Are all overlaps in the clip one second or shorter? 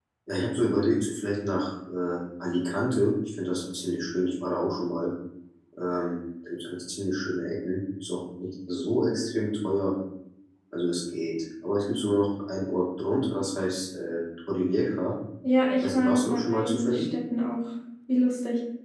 No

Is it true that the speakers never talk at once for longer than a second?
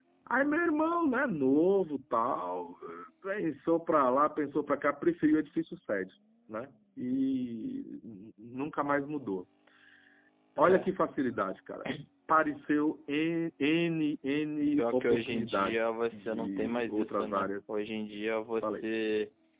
No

